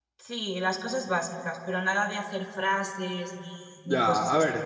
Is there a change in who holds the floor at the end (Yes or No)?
Yes